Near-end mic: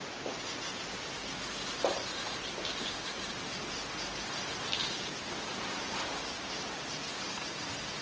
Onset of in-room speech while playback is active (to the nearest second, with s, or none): none